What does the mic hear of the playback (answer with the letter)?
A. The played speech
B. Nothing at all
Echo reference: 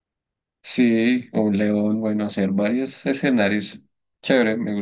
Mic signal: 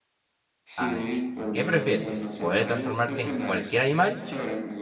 A